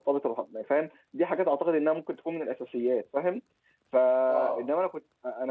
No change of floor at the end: Yes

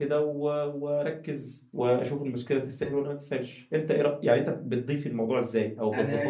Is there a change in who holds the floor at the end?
Yes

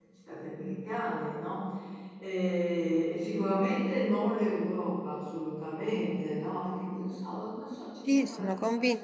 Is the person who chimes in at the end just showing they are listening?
No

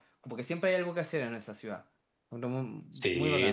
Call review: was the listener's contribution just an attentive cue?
No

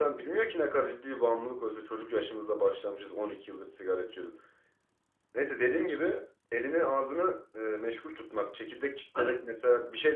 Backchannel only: Yes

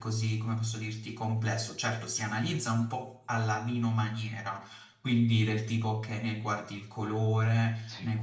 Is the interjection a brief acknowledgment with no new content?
Yes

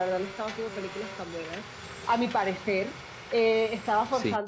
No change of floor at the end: Yes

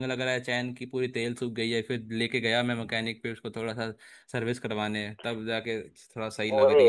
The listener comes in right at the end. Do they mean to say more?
Yes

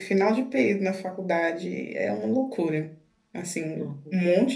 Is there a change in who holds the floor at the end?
No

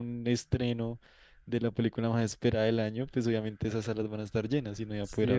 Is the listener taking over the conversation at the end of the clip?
Yes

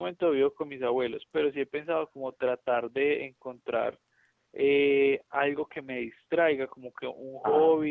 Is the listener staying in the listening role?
Yes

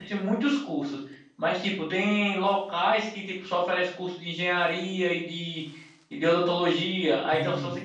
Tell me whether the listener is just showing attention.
Yes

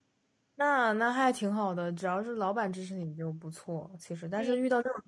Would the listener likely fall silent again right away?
Yes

